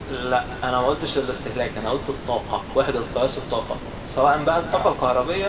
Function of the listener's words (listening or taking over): listening